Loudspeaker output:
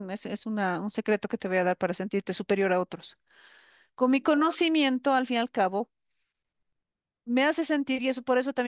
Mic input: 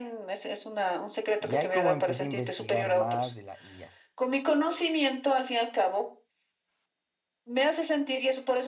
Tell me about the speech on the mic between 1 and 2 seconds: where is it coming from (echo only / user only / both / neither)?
both